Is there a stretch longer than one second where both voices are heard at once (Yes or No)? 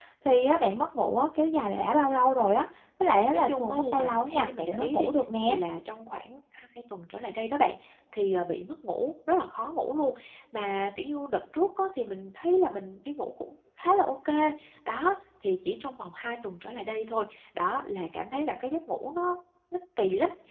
Yes